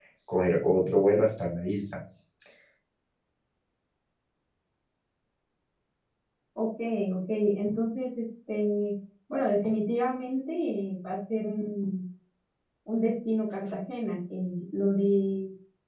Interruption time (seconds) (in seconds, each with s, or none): none